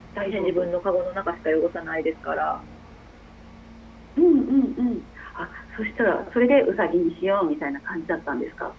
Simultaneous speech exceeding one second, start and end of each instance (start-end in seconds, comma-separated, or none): none